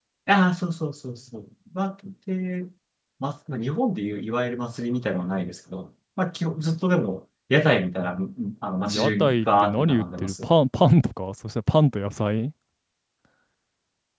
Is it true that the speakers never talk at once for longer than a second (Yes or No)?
No